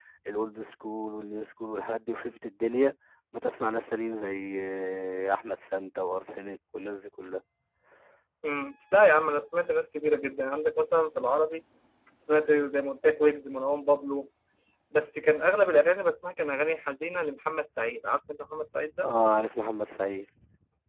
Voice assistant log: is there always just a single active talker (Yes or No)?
Yes